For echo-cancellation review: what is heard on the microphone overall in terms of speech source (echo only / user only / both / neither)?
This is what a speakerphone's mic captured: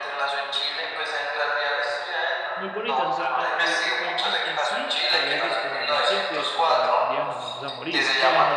both